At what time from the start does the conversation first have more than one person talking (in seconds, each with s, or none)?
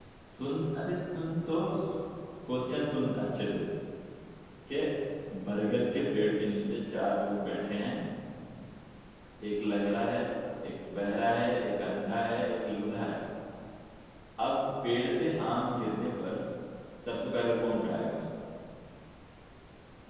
none